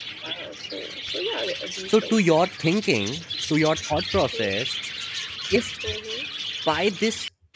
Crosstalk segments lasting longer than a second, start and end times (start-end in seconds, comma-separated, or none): none